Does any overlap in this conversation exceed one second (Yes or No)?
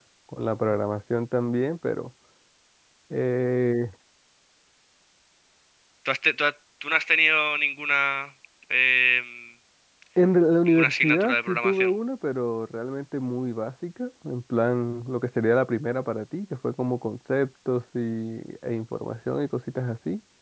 Yes